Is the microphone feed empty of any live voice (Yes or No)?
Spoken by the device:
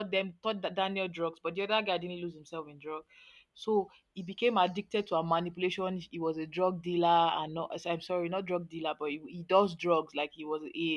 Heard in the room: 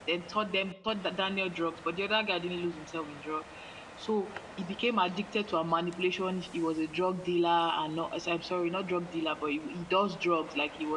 Yes